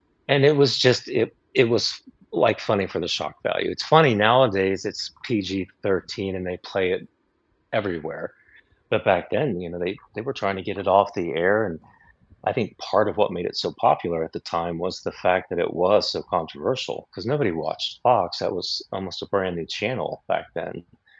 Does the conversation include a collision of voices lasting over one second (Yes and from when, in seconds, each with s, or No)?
No